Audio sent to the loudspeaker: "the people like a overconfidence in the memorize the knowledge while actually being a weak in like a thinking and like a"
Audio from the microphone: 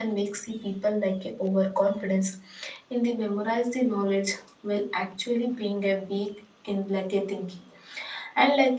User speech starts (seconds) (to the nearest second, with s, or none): none